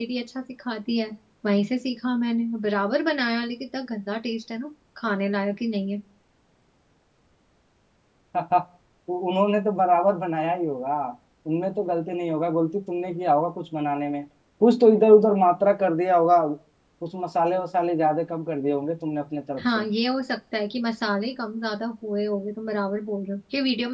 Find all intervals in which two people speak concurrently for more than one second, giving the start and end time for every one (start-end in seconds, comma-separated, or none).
none